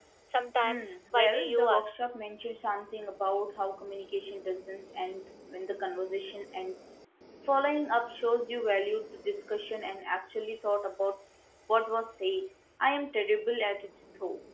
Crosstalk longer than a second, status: present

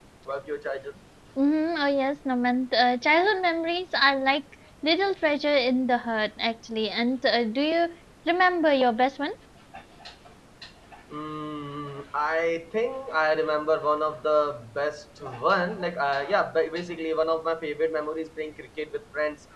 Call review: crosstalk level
none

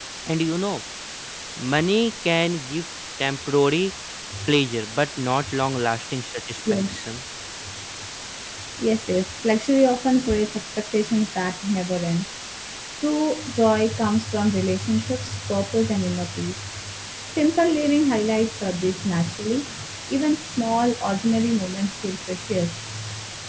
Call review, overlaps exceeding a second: none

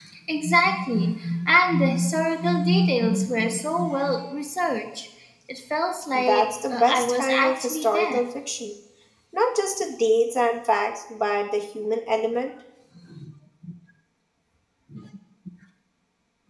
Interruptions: present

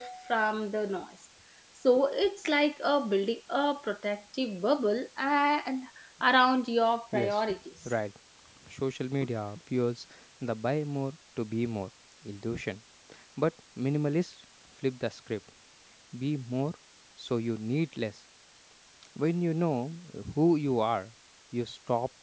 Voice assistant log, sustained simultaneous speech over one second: none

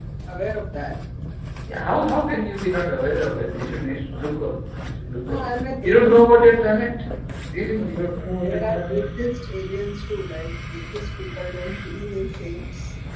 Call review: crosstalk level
present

